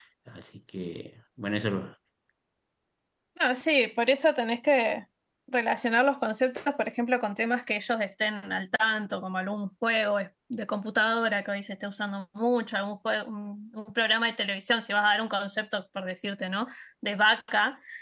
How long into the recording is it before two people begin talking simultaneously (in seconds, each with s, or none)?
none